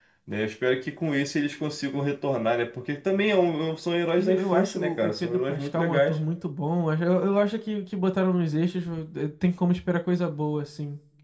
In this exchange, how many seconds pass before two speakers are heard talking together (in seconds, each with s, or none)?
4.2 s